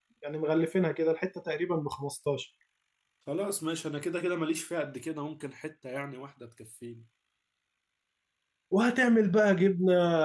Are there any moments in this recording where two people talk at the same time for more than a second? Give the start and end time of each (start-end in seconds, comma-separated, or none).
none